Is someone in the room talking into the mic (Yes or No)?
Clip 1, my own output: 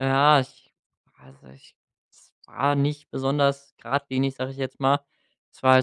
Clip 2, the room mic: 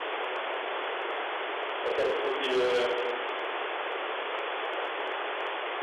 Yes